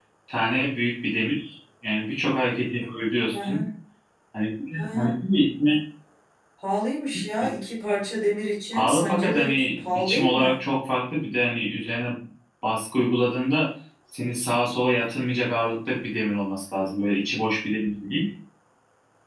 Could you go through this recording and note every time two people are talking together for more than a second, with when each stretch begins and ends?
8.7-10.6

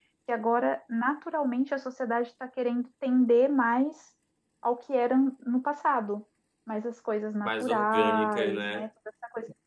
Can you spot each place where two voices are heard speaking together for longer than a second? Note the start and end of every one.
7.5-8.9

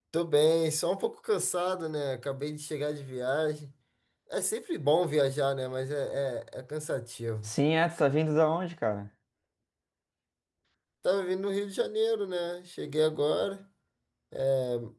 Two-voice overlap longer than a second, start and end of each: none

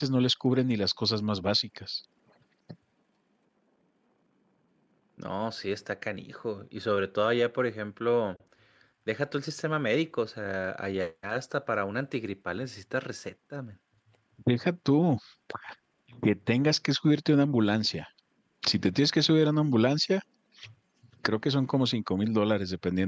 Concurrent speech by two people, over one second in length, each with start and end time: none

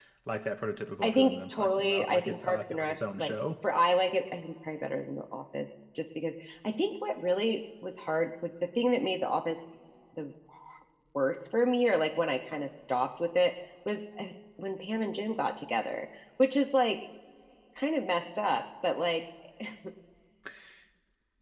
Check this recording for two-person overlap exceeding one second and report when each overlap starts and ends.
1.0-3.4

